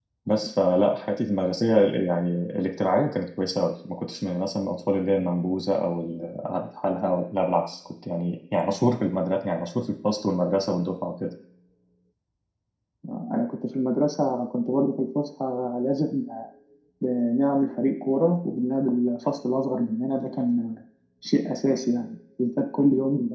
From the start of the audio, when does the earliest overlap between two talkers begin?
none

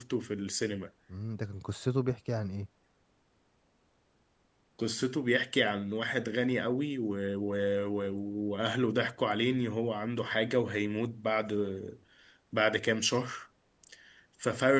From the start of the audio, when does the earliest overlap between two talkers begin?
none

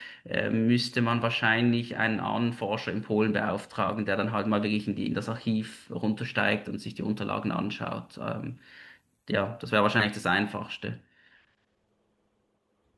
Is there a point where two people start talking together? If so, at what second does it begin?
none

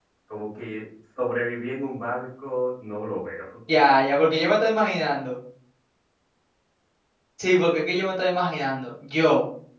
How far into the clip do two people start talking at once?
none

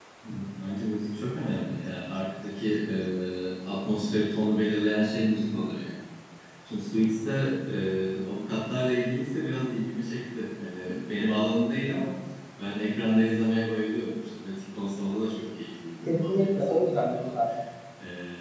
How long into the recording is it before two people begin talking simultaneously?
16.1 s

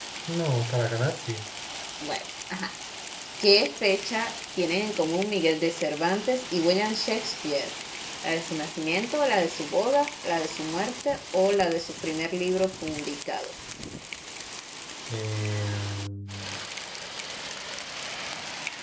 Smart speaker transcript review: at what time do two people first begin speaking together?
none

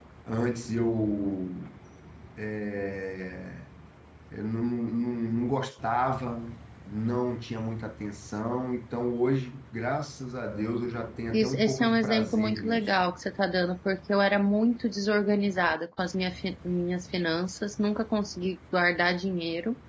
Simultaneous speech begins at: 11.3 s

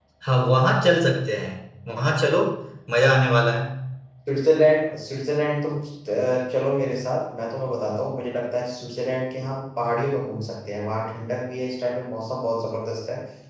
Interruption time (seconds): none

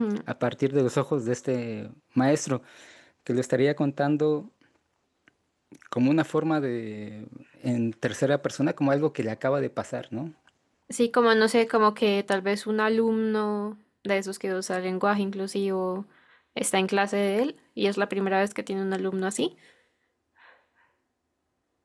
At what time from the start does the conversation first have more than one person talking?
none

